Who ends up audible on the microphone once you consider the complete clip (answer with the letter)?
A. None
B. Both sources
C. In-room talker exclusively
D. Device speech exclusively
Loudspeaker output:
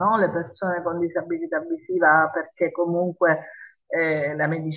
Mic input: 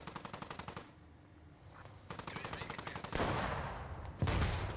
A